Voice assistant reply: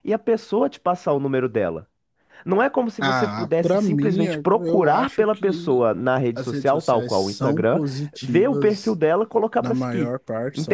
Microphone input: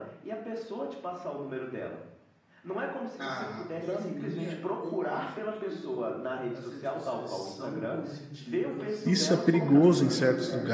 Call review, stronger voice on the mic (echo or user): user